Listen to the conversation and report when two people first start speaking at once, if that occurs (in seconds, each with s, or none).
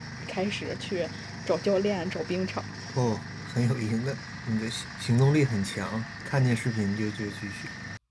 none